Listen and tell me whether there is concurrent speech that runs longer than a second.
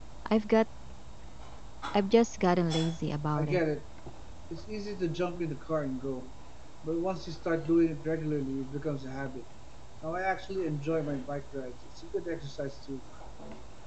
No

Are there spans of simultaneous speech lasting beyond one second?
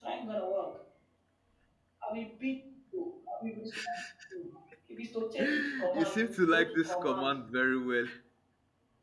Yes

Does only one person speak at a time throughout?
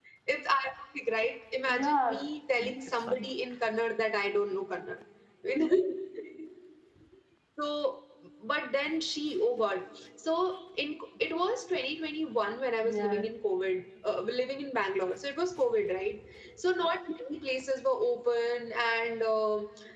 No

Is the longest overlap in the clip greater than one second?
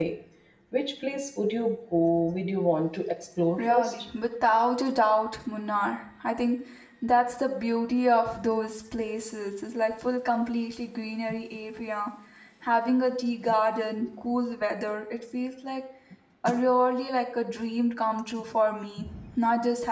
No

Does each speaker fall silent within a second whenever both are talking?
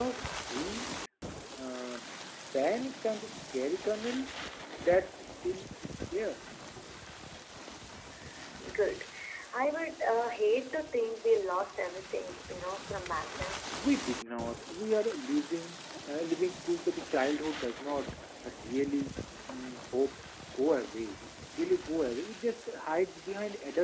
Yes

